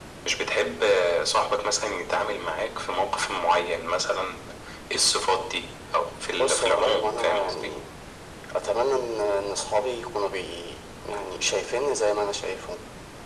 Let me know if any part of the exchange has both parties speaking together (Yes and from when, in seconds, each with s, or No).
Yes, from 6.3 s